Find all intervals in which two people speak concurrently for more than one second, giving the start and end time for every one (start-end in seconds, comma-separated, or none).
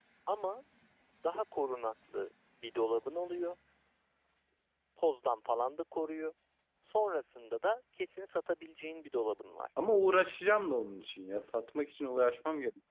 none